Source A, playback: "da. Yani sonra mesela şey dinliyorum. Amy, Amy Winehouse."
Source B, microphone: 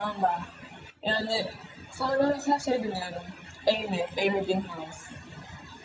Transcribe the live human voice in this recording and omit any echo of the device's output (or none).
none